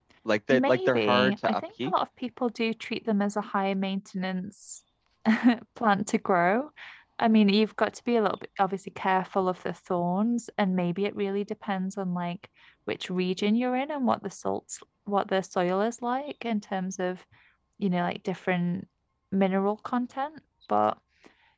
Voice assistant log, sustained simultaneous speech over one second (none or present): present